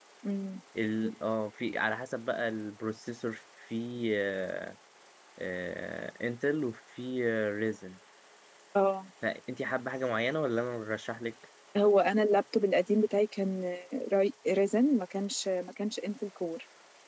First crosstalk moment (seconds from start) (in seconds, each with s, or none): none